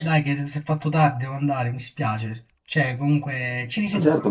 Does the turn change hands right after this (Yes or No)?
Yes